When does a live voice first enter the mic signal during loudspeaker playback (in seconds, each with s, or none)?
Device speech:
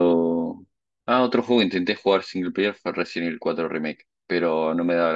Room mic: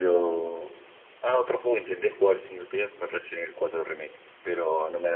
none